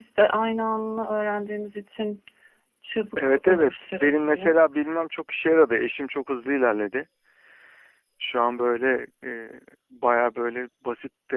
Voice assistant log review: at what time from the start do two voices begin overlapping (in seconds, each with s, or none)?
3.2 s